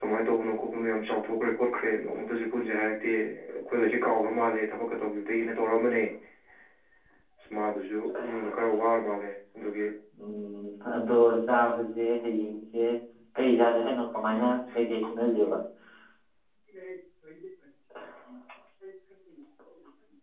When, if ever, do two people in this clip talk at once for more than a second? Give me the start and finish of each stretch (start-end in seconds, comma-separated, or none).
none